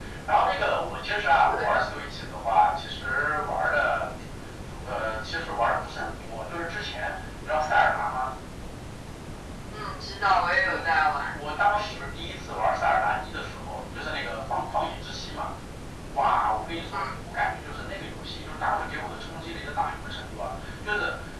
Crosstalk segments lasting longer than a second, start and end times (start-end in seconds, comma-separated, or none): none